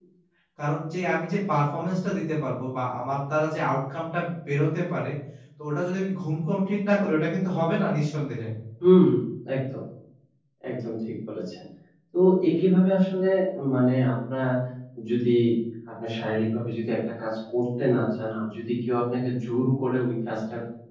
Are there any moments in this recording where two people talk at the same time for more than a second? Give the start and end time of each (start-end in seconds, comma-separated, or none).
none